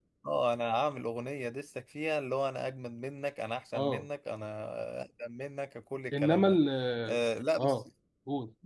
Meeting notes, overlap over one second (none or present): none